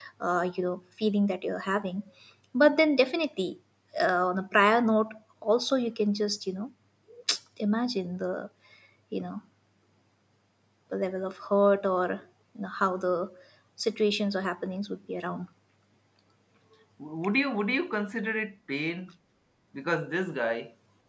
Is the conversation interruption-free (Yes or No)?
Yes